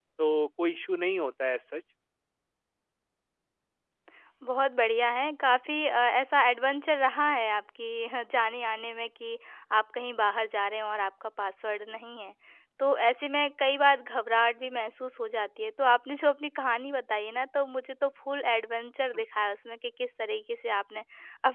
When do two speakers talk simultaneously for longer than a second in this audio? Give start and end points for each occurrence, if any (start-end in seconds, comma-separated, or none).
none